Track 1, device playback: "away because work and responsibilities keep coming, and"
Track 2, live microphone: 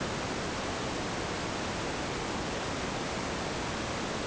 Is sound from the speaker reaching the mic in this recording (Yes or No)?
No